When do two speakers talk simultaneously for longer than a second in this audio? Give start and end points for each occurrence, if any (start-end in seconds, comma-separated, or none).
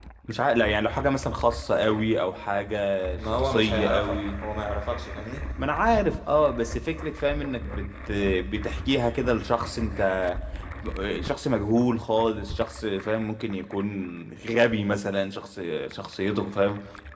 3.2-4.5